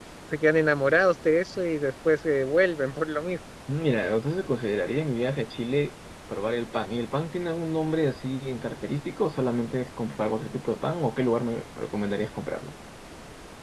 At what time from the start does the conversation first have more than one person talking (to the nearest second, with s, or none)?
none